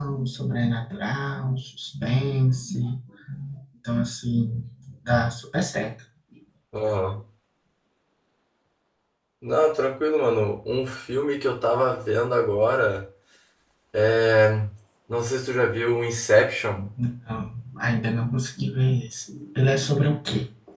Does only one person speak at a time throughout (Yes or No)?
Yes